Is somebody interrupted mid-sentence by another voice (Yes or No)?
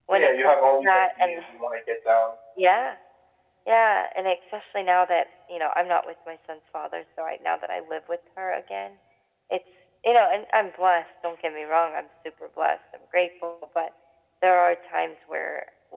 Yes